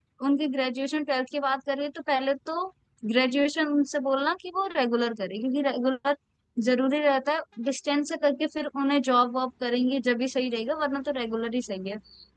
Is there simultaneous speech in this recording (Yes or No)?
No